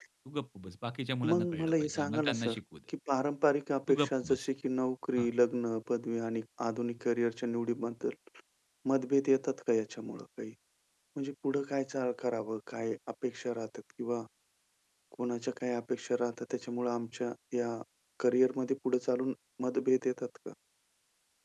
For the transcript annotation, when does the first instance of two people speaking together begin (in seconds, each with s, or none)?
1.3 s